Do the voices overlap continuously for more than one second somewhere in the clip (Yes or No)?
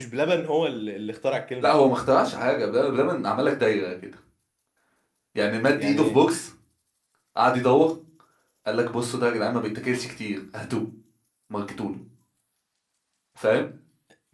No